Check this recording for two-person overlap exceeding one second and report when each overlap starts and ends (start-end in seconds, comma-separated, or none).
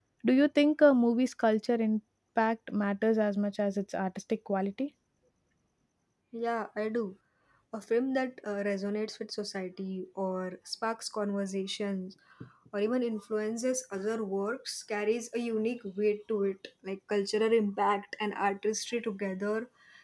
none